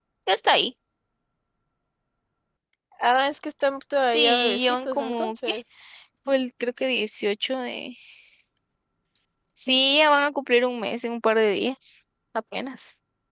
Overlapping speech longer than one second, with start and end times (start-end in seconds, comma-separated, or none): 4.1-5.5